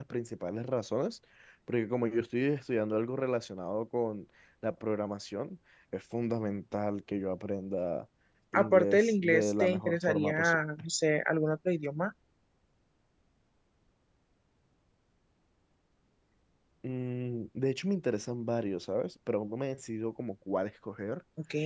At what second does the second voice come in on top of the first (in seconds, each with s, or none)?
8.5 s